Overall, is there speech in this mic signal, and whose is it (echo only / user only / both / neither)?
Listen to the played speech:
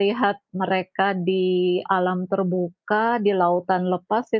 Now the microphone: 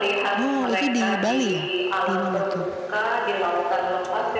both